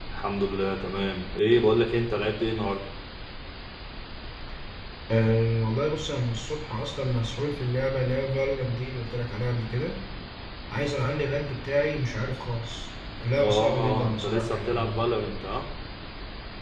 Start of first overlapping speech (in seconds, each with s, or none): 13.4 s